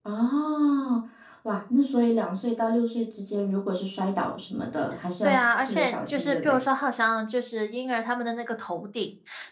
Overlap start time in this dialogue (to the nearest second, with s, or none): 5 s